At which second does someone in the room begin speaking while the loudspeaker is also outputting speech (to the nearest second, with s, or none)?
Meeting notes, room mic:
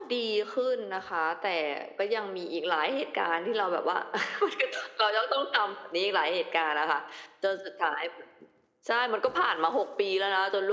none